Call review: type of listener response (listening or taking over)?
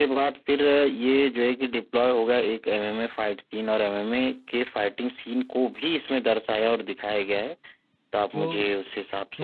taking over